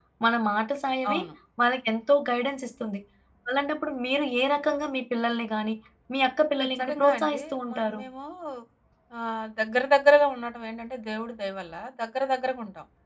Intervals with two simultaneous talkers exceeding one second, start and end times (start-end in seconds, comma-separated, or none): 6.6-8.0